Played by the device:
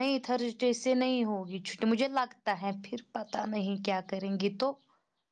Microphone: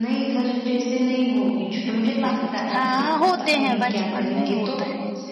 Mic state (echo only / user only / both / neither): both